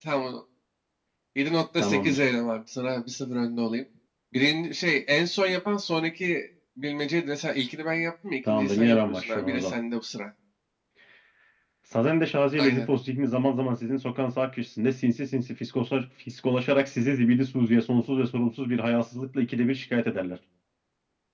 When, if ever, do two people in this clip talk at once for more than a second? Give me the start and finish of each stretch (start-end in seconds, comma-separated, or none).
8.5-9.7